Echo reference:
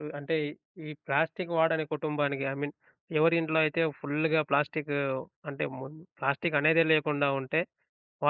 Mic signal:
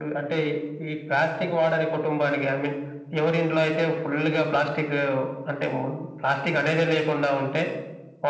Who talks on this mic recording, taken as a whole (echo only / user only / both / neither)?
echo only